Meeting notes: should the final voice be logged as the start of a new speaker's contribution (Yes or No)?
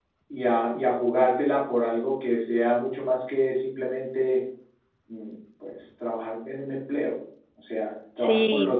Yes